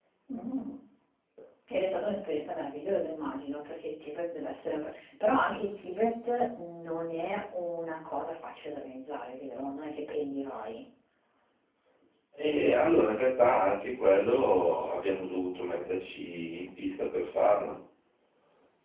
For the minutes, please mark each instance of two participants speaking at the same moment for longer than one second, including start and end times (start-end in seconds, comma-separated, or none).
none